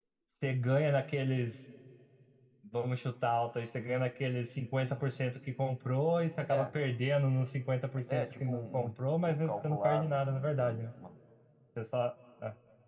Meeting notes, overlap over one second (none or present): present